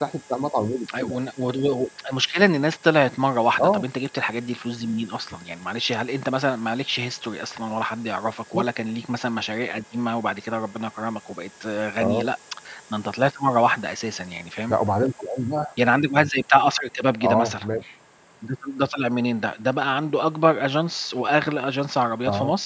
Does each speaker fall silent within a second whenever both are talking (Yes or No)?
Yes